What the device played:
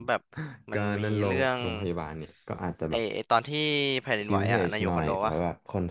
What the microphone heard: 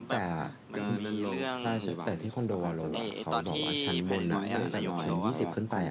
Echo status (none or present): present